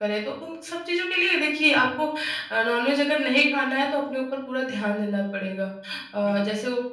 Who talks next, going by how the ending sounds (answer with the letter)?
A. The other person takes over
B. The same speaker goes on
B